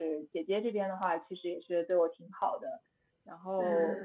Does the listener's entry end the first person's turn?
No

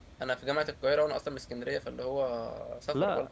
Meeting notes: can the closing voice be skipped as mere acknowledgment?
No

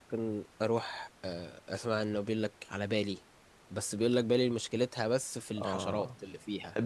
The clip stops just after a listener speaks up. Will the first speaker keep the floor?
No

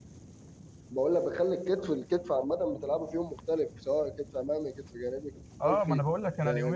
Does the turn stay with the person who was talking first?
No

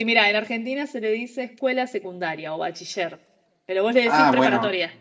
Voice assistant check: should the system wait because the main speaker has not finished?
No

